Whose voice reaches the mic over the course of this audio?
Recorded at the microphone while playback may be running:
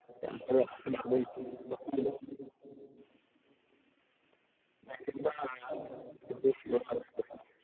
echo only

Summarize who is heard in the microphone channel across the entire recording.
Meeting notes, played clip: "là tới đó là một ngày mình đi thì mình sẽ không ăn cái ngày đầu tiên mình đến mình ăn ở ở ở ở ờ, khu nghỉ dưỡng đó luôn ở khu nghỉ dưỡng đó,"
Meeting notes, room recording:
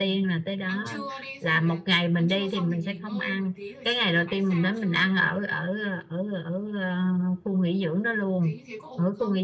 both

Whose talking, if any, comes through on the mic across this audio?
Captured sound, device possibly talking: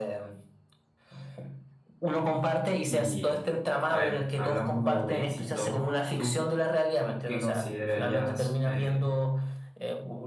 both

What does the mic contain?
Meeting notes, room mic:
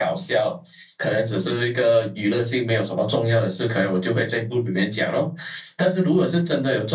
echo only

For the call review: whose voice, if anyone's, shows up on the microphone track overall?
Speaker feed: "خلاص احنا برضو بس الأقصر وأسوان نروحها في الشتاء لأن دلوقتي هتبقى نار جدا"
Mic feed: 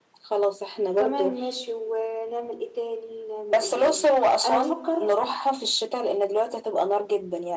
both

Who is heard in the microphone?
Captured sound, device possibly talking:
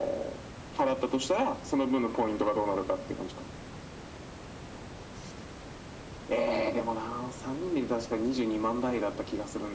echo only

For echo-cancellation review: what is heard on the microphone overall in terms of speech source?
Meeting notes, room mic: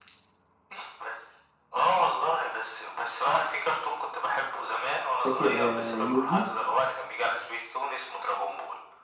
both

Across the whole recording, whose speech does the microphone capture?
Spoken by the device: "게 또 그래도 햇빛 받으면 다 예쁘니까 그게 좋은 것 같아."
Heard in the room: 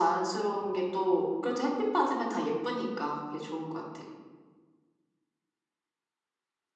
echo only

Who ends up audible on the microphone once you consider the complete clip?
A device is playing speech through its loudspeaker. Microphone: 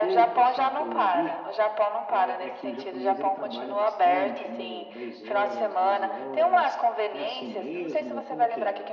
both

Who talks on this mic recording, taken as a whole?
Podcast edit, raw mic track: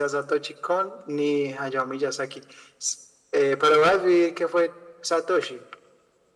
echo only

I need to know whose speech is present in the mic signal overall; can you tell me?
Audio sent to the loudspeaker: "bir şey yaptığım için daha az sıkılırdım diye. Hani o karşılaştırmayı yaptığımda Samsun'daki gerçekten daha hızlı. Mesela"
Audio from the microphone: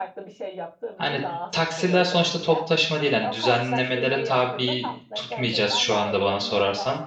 both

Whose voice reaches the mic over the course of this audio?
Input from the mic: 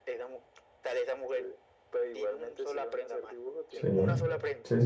both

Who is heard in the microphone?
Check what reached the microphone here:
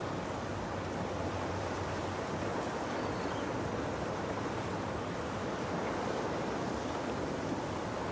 neither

